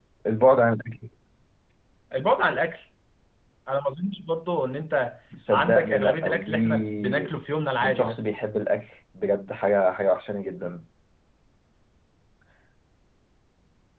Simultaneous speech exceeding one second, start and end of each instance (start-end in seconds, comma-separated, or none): 5.5-7.3